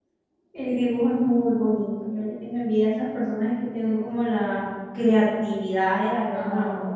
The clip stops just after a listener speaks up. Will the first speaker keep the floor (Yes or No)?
Yes